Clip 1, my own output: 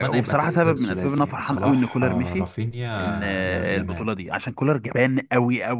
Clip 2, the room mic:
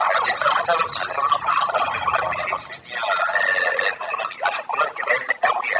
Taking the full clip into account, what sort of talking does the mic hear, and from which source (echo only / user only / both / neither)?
echo only